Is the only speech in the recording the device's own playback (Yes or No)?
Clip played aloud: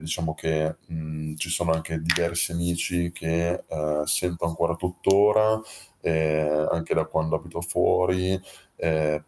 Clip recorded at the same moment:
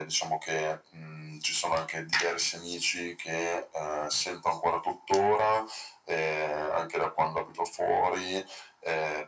Yes